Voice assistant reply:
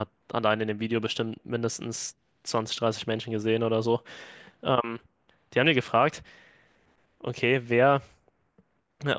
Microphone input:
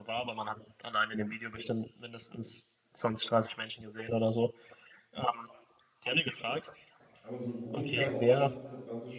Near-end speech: present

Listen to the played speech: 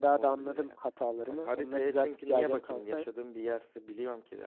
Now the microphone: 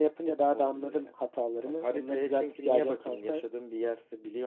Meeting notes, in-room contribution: none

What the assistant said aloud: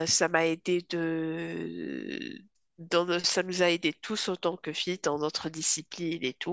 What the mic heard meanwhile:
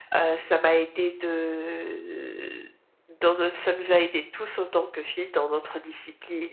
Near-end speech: none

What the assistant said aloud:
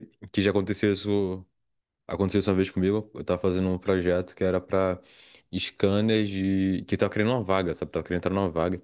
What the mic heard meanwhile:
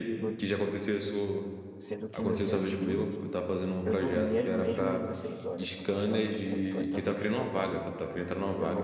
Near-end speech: present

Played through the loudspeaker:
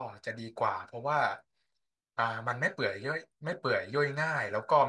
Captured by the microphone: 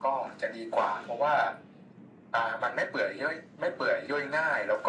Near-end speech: none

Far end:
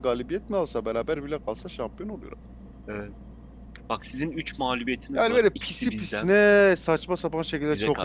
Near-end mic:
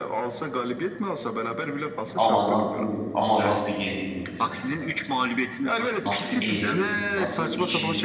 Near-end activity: present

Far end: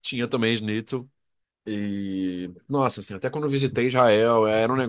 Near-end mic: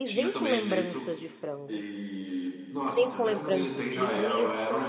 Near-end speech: present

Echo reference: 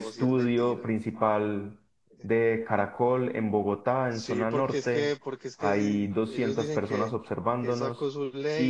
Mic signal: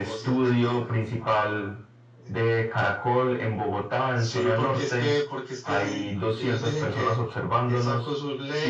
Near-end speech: none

